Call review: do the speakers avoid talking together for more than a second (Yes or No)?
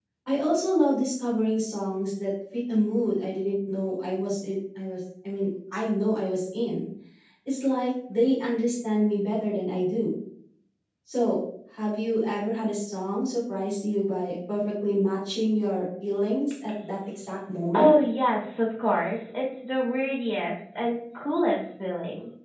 Yes